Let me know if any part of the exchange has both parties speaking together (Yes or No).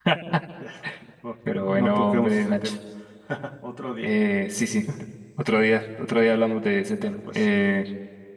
Yes